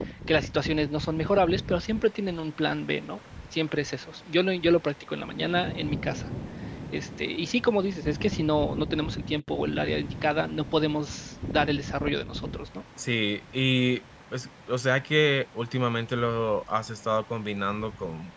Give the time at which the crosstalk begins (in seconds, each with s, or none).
none